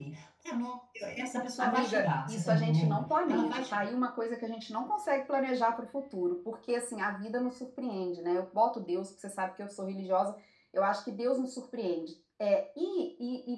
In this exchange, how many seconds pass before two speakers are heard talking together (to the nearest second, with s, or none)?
2 s